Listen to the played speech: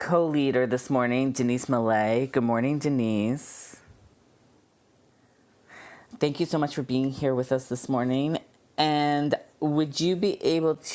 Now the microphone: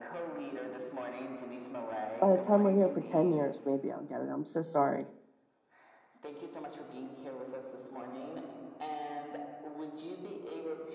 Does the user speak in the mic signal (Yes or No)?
Yes